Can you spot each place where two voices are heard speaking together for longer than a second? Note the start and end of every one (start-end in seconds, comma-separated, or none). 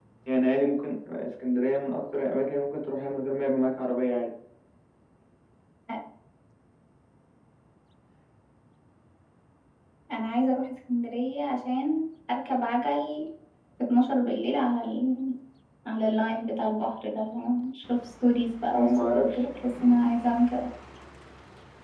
18.7-19.9